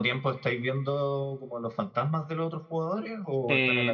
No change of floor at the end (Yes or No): No